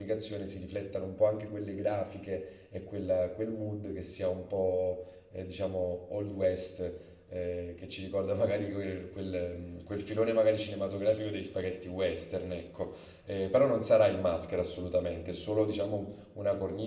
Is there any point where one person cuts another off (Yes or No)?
No